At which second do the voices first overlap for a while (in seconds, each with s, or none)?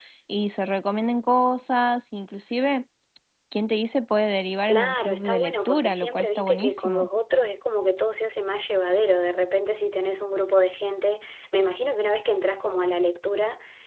4.7 s